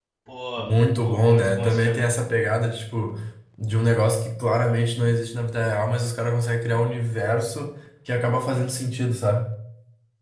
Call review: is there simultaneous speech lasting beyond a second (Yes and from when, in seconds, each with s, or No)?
Yes, from 0.6 s